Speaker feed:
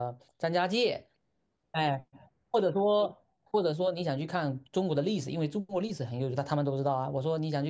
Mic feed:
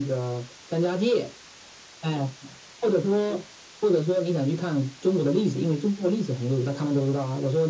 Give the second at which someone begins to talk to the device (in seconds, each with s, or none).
none